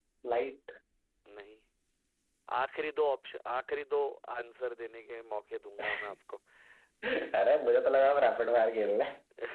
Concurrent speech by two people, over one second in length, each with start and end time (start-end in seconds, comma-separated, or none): none